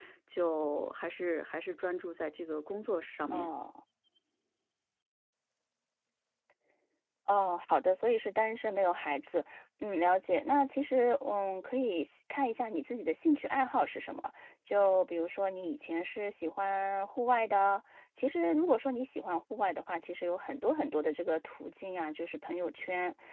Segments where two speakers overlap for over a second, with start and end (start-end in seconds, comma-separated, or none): none